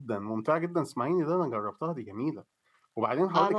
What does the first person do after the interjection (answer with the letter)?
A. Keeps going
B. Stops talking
A